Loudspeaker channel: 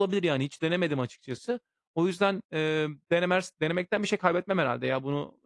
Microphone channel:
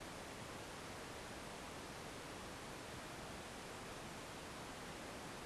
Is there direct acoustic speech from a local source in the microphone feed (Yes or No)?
No